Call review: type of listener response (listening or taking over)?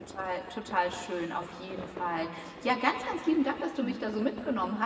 listening